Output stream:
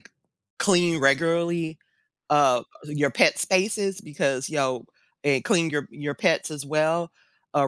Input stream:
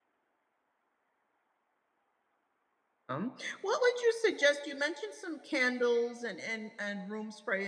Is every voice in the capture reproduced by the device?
No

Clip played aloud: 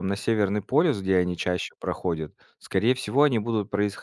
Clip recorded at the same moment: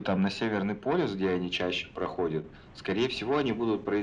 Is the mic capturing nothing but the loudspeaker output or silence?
Yes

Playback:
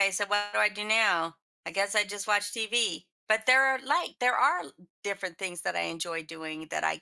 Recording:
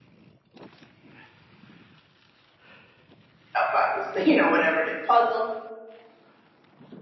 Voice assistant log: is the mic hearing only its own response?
No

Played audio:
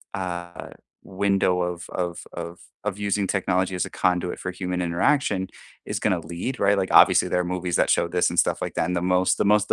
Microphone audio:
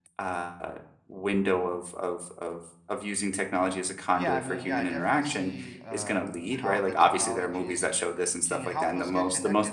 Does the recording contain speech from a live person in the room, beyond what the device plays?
Yes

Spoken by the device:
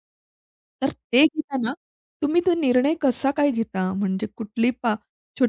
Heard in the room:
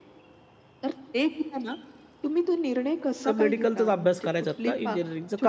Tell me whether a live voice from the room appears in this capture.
Yes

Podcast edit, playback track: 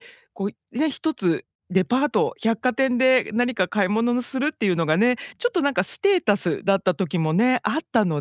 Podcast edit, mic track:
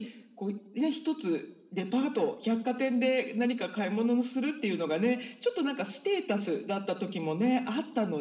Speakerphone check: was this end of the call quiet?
Yes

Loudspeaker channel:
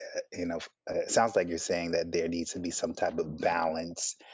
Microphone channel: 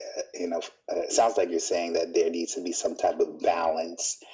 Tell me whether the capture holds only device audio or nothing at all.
Yes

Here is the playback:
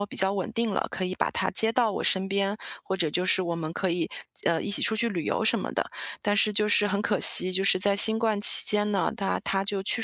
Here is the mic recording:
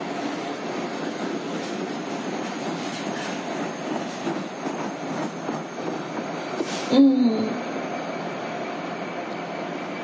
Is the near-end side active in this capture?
Yes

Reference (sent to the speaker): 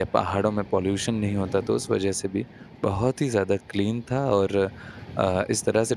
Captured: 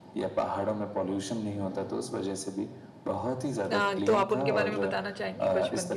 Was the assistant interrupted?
Yes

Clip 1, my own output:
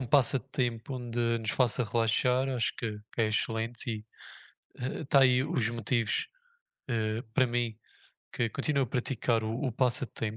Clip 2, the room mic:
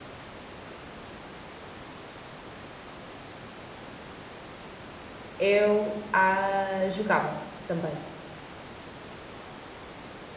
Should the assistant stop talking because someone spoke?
Yes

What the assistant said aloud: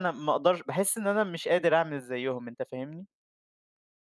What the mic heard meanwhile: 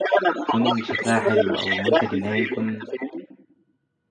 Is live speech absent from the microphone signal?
No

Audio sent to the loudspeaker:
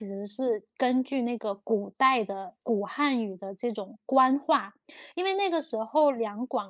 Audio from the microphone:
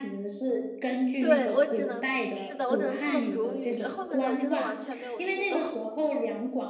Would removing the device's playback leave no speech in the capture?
No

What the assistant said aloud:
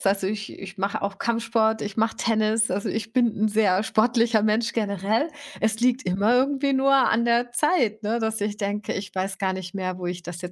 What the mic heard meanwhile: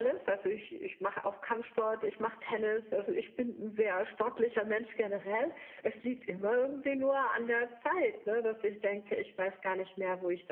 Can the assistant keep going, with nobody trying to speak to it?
Yes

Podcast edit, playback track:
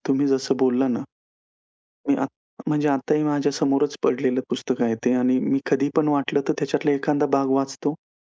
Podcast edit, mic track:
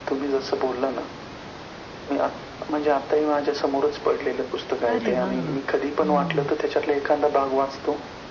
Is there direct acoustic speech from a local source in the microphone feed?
Yes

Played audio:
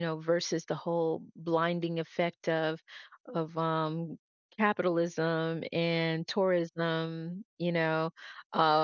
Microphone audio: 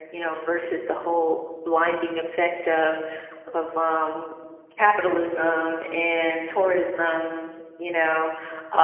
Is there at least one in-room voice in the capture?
No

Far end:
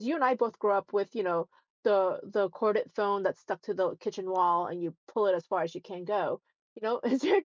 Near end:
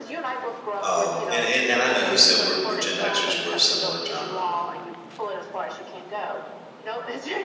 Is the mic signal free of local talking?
No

